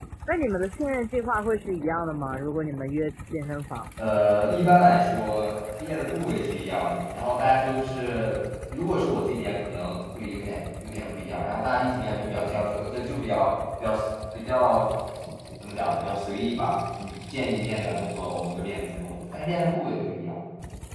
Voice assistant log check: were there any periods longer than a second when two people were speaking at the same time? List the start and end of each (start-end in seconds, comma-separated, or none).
none